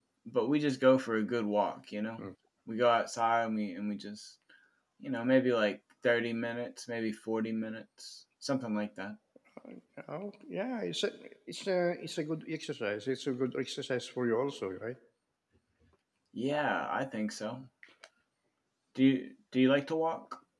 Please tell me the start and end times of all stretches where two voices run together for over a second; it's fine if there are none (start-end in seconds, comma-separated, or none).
none